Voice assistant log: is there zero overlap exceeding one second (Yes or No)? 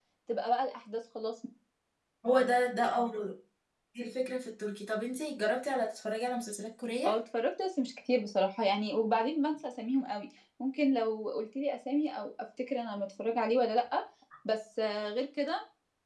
Yes